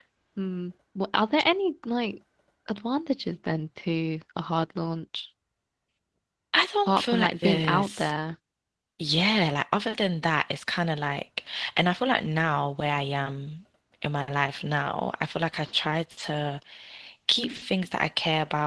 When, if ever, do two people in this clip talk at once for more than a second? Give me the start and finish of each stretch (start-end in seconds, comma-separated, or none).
6.9-8.1